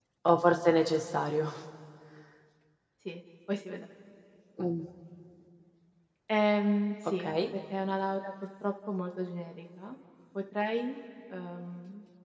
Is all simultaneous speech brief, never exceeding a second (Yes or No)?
Yes